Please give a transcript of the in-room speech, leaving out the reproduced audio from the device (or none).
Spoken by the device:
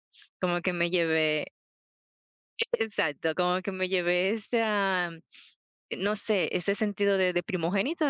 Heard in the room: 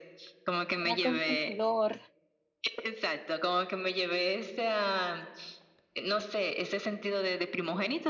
Era consentidor.